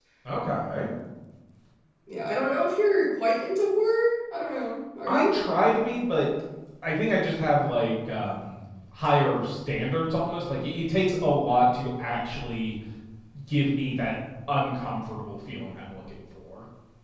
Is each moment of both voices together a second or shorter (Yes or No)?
Yes